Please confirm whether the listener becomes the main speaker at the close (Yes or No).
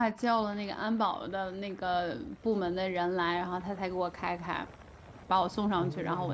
No